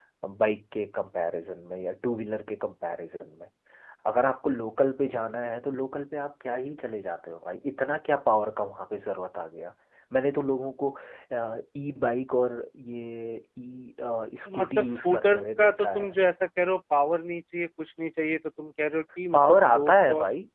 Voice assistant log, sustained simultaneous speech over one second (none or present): present